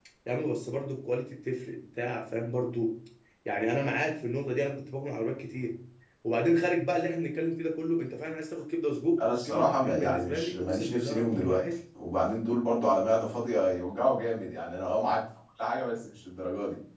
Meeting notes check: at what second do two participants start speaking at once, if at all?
9.2 s

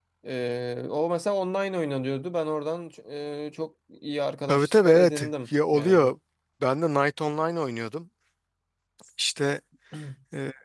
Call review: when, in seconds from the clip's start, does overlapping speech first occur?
4.5 s

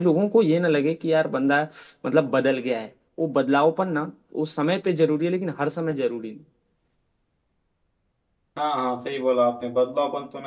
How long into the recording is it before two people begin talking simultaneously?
none

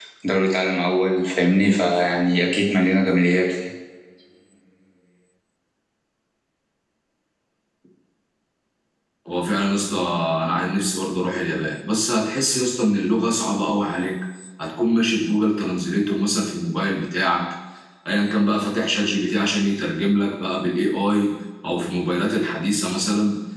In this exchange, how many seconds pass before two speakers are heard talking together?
none

